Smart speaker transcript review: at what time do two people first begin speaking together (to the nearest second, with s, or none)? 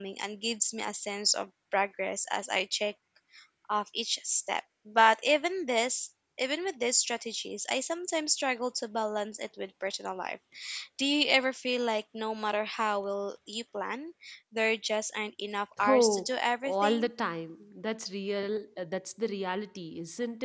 16 s